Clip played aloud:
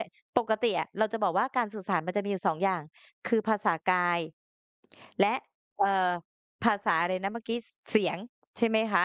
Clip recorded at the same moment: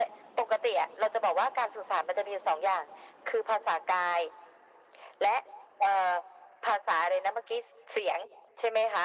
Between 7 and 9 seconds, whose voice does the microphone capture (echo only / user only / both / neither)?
echo only